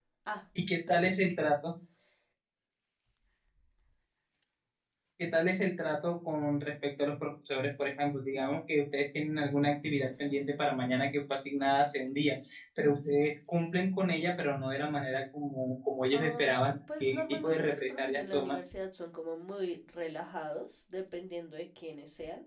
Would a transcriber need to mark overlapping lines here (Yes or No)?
Yes